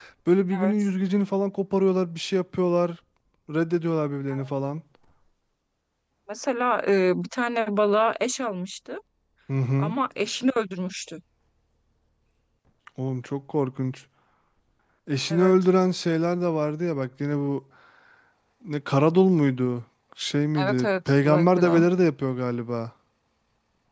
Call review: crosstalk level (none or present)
present